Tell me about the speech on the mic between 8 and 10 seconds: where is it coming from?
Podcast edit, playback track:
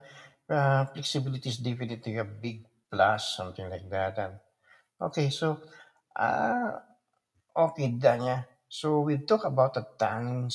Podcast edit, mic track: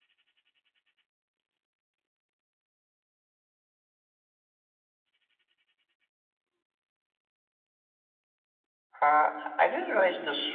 user only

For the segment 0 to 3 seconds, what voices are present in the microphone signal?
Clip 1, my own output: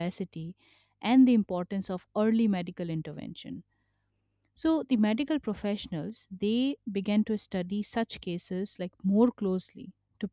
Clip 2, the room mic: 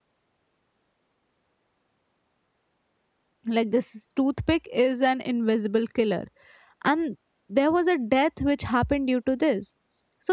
neither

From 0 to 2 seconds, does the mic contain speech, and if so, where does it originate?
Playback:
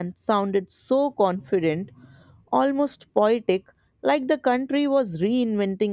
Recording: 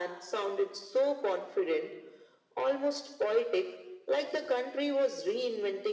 echo only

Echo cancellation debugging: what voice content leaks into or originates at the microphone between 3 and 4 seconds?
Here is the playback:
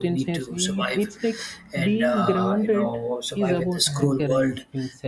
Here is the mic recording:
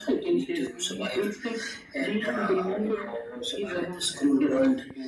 echo only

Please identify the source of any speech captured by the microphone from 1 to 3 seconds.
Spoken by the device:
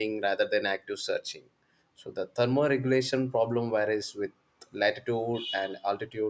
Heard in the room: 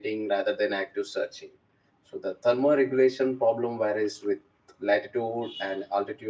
echo only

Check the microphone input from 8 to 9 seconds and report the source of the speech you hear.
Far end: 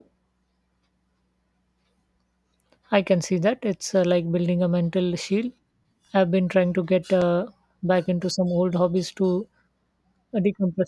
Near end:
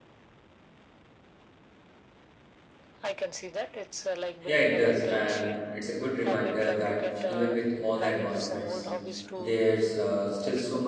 both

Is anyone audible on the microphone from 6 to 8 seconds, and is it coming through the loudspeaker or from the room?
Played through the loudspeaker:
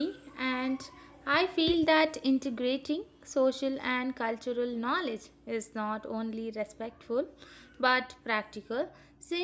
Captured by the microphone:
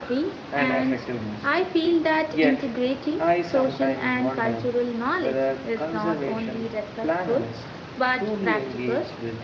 both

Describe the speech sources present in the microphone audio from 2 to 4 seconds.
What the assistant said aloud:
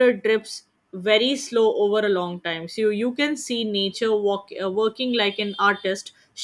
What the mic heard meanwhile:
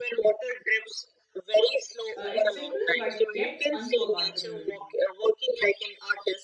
both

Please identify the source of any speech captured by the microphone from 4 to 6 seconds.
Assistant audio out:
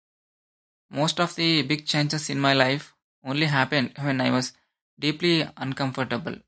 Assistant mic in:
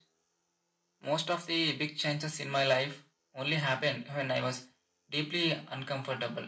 echo only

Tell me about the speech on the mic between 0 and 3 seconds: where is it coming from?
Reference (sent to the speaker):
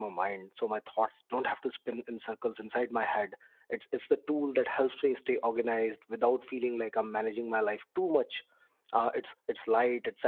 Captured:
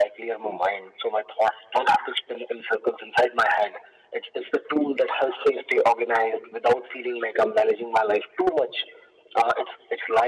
echo only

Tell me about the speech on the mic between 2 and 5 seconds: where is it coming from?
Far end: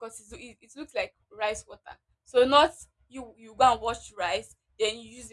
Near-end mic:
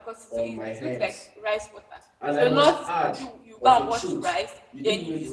both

